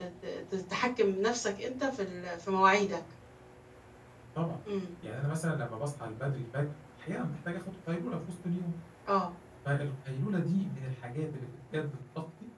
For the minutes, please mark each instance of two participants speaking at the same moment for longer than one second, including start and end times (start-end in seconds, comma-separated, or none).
none